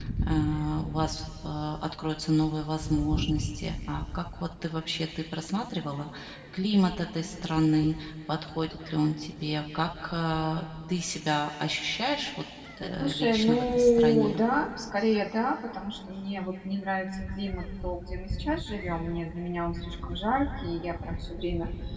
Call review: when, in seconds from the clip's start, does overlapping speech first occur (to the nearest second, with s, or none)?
13 s